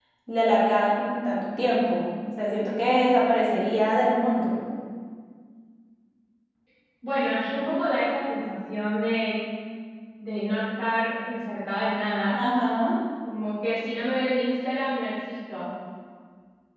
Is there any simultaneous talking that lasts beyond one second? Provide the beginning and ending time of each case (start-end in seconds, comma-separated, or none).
none